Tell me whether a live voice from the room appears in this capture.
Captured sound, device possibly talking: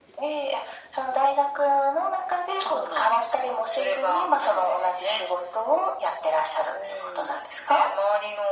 No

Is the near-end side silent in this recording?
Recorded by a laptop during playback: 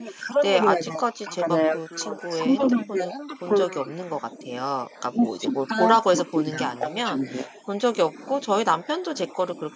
No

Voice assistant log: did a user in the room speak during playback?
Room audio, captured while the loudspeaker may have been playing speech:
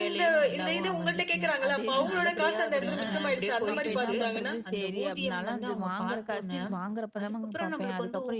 Yes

